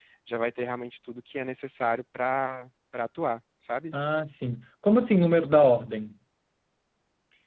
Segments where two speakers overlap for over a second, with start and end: none

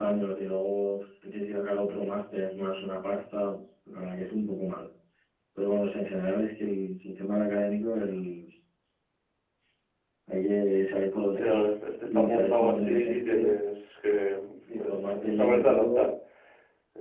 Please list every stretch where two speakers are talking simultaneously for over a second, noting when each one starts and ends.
12.0-13.5, 14.8-16.1

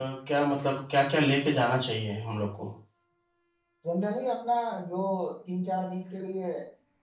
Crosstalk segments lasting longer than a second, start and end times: none

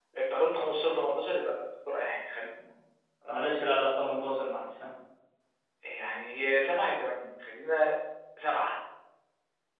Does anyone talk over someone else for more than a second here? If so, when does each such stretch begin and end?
none

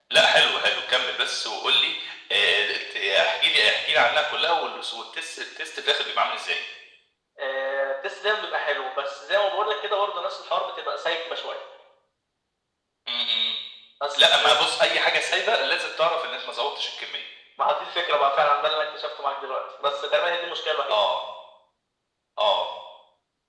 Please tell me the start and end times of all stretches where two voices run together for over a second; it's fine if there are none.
none

